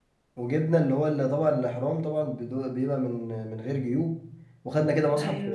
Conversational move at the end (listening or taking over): listening